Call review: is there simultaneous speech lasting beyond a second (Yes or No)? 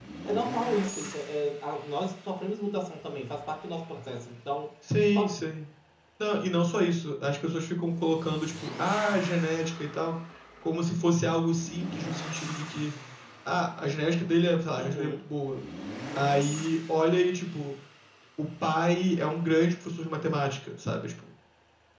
No